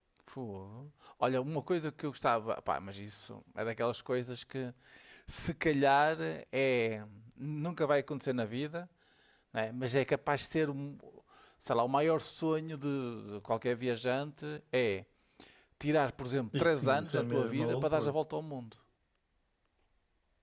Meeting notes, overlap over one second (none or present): present